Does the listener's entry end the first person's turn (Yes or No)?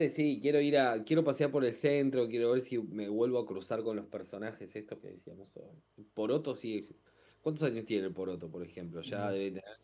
No